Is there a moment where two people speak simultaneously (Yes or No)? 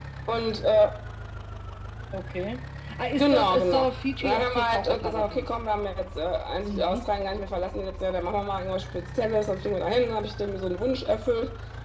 Yes